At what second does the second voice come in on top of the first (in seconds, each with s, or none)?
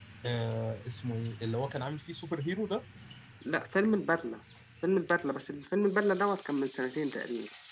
none